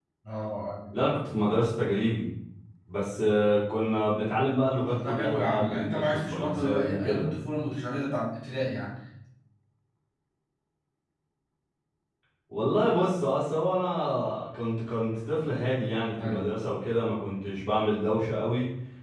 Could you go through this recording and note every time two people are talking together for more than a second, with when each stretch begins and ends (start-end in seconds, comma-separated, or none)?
4.8-7.3